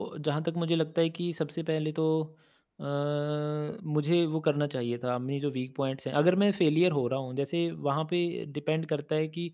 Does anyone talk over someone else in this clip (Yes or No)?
No